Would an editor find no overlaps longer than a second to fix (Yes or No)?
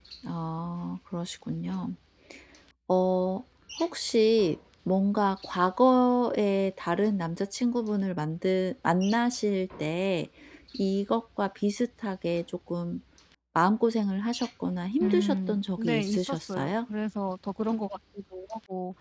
No